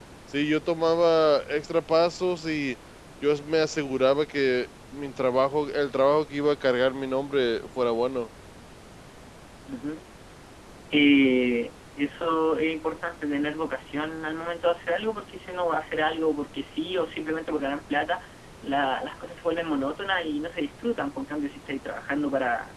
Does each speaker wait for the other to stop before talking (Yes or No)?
Yes